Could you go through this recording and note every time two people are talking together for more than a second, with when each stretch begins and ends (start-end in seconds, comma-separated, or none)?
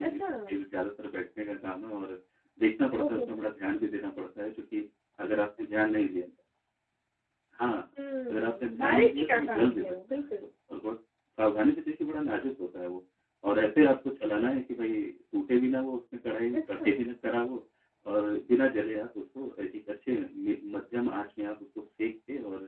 8.3-10.3